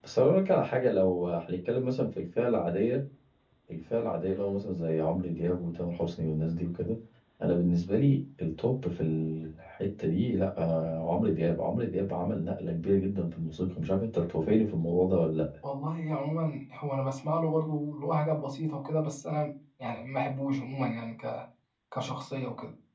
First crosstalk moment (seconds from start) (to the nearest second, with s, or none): none